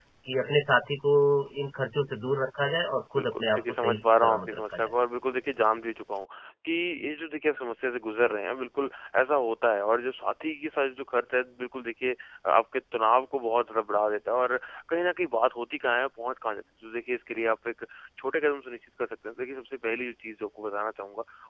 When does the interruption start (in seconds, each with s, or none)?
3.2 s